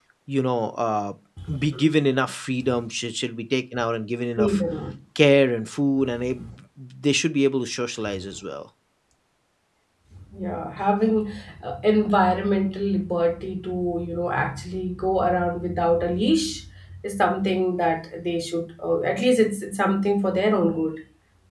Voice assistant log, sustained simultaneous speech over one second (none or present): none